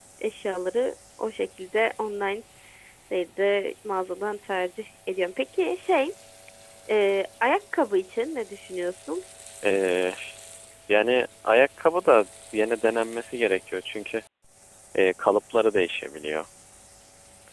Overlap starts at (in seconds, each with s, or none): none